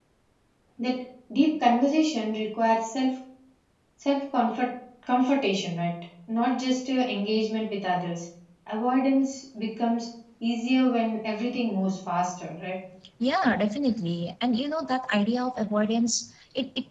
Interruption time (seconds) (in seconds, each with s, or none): none